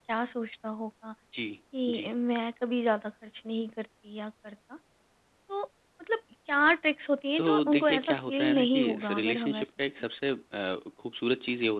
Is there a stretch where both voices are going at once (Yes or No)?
Yes